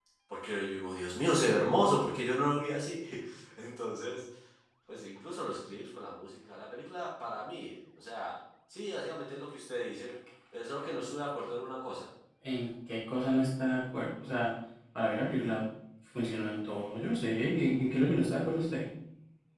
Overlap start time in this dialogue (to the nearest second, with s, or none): none